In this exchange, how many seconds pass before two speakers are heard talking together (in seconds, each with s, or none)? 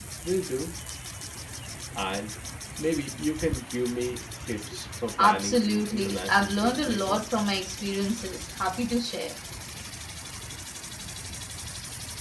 5.2 s